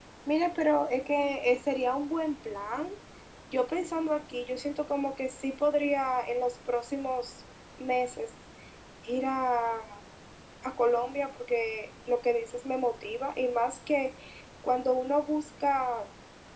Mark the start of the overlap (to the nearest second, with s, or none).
none